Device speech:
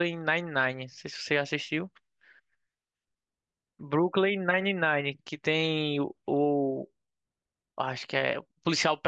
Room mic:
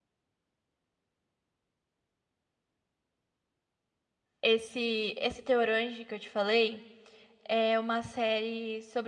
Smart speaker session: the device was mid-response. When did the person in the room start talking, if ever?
4 s

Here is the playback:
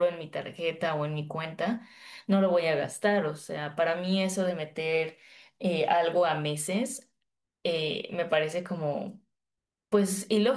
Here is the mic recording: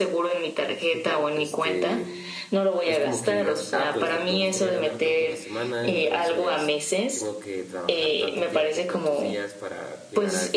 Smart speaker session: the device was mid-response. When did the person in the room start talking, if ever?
1 s

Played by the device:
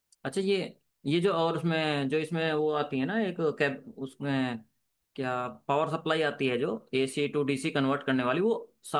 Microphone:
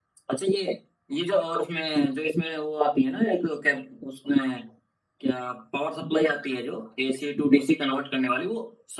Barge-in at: none

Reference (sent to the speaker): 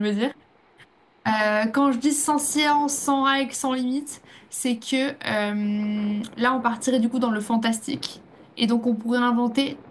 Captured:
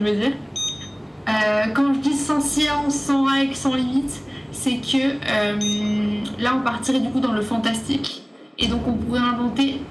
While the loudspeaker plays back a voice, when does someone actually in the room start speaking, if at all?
none

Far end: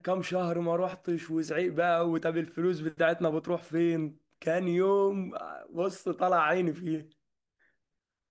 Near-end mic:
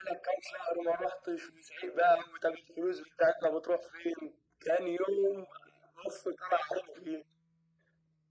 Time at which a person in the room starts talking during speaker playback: none

